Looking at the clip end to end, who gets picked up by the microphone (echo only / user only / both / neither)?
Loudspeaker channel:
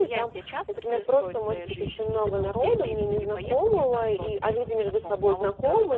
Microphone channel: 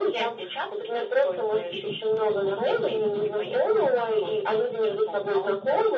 echo only